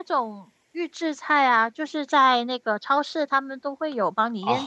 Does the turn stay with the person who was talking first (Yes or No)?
No